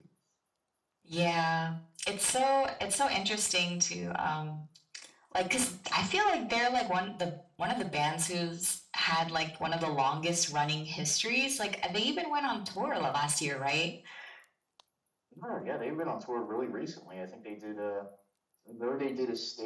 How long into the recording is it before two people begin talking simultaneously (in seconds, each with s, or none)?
none